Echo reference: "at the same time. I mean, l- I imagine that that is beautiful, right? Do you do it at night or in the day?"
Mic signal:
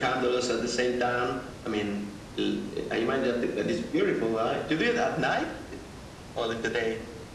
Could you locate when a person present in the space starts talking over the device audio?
none

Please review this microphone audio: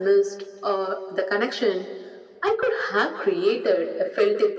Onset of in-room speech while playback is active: none

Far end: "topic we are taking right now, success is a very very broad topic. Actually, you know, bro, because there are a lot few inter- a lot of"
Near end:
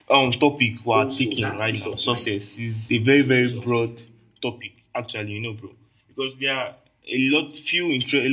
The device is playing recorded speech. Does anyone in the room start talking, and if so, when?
0.9 s

